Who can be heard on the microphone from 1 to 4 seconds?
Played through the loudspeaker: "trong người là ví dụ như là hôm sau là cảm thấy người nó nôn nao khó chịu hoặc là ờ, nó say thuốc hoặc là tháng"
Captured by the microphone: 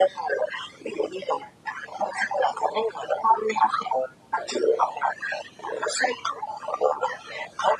echo only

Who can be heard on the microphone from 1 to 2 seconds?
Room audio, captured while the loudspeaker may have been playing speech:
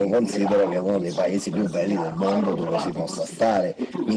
both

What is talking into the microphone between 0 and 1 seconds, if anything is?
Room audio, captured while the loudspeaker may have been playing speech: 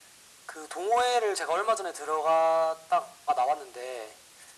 echo only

